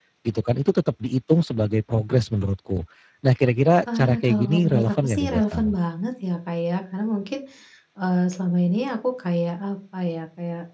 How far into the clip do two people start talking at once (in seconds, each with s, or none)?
4.0 s